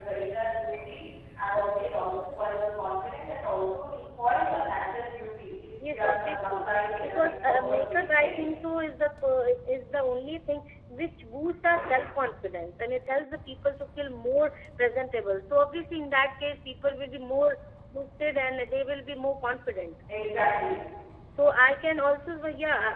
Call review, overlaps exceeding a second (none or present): present